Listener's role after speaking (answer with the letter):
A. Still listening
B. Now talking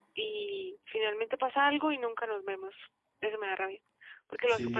B